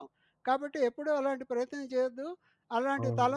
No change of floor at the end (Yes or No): Yes